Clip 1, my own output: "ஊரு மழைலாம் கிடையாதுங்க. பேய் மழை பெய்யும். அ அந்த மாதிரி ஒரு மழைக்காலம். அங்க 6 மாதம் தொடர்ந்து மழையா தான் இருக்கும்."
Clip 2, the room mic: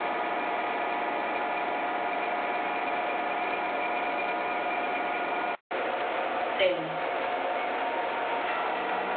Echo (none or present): none